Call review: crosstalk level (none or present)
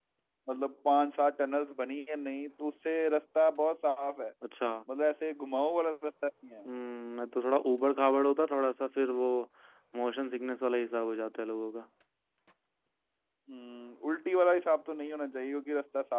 none